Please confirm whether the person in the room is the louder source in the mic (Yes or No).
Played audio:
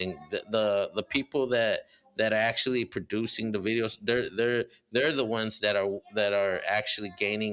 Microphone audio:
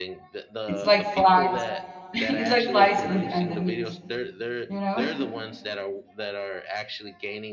Yes